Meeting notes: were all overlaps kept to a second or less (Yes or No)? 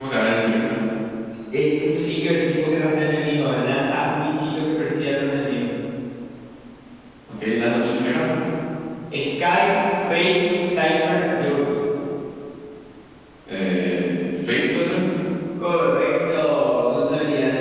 Yes